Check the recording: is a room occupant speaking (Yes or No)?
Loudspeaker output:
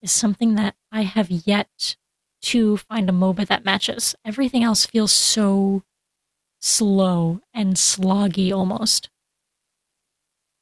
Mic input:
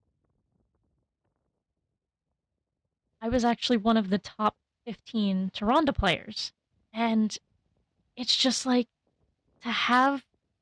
Yes